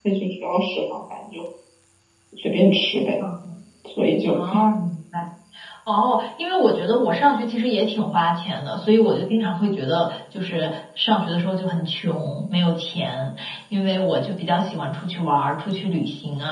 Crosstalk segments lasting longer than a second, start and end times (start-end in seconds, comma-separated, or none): none